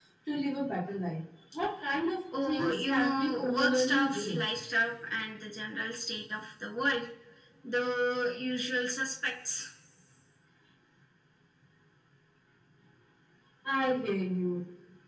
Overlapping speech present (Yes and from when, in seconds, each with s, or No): Yes, from 2.3 s